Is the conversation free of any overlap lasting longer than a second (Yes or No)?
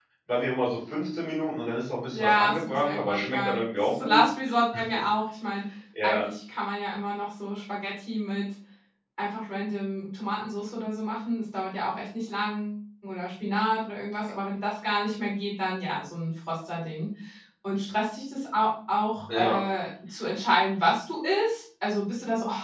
No